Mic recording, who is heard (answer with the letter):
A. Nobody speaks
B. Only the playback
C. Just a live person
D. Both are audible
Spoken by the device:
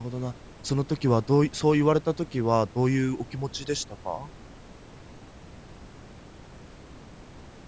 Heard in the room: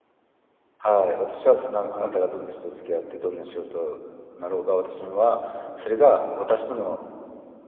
C